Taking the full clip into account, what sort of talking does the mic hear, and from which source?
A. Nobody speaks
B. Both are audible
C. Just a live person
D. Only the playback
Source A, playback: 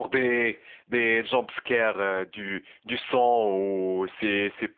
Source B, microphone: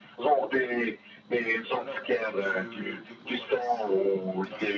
B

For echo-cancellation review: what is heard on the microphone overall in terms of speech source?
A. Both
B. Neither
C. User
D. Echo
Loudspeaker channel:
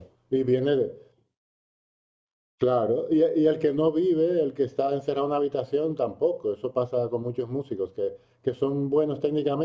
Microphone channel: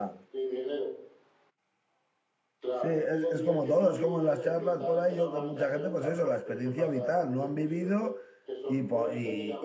A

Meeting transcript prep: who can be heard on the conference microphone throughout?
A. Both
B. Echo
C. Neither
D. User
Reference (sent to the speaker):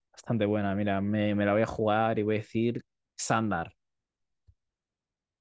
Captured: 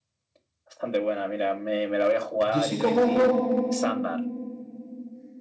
A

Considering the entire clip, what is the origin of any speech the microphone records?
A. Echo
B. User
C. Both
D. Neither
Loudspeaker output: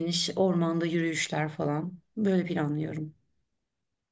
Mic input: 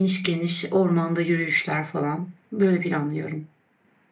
A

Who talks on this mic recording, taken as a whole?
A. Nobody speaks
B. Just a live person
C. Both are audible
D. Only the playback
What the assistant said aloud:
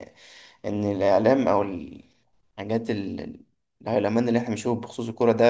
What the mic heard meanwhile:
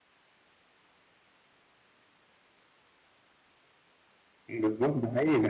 B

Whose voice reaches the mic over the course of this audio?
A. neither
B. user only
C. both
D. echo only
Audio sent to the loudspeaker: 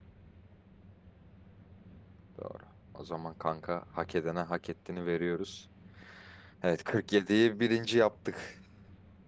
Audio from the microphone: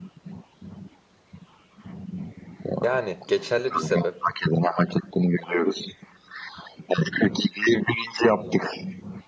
C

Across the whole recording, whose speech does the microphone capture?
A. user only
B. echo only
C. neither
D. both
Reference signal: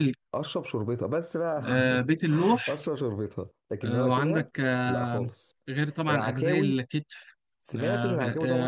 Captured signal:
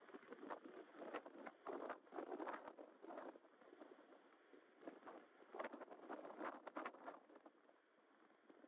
C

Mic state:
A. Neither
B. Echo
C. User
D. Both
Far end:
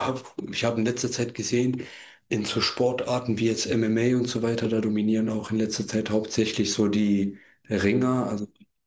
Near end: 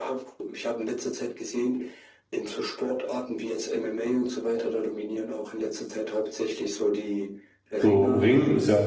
D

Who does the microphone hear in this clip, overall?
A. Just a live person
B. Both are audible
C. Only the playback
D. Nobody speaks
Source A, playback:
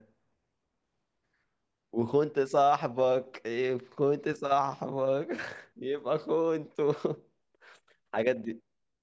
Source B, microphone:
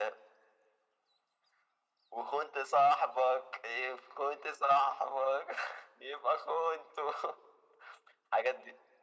C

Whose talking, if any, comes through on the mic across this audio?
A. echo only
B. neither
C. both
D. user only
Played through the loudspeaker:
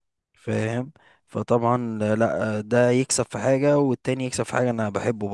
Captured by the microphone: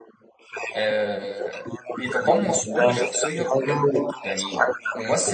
C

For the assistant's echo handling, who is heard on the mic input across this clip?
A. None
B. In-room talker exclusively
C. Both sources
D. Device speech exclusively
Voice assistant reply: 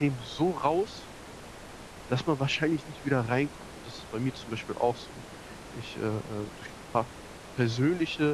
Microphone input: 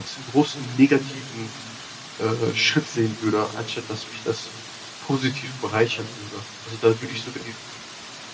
B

